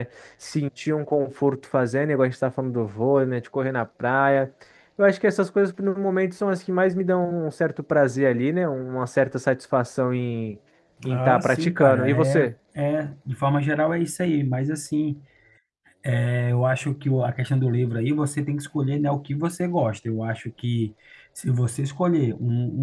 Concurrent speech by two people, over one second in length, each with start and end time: 11.1-12.5

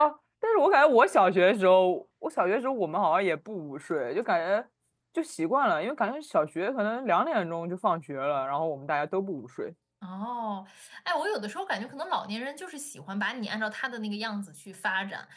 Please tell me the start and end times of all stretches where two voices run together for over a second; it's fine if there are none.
none

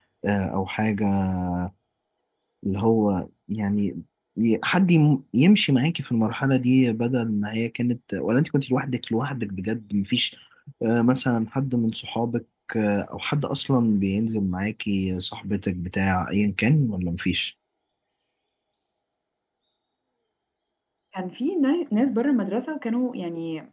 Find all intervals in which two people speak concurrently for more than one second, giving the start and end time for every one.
none

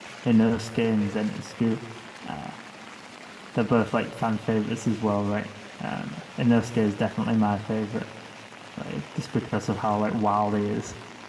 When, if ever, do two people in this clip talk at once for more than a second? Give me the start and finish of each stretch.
none

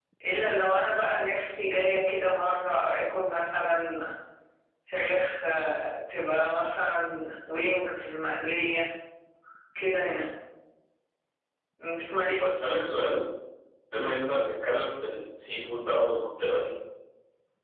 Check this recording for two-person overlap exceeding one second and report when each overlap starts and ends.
none

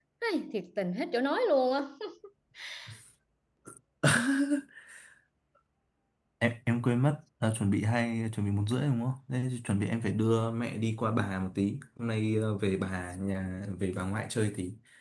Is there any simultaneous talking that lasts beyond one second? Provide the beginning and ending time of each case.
none

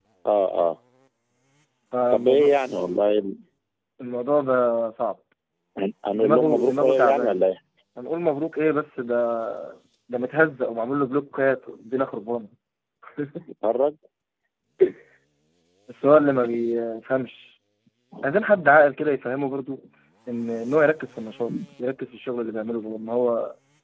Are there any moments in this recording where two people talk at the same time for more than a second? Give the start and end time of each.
6.1-7.3

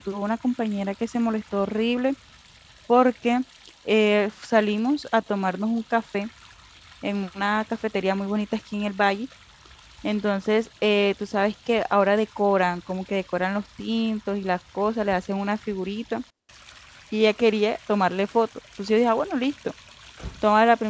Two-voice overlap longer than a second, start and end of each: none

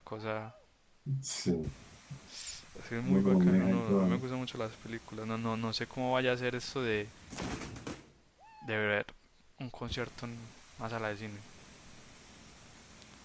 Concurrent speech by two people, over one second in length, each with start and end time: 3.0-4.2

